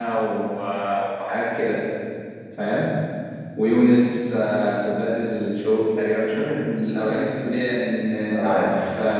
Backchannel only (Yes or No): Yes